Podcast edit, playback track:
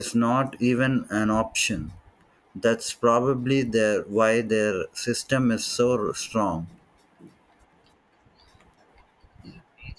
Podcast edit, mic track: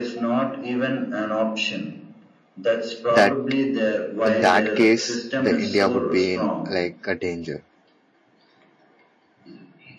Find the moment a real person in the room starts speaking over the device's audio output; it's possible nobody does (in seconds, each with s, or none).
3.1 s